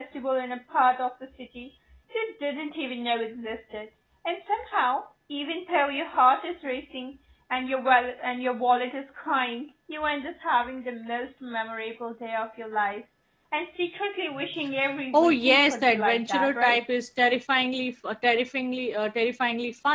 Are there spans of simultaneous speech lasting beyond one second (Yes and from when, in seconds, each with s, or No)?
Yes, from 15.1 s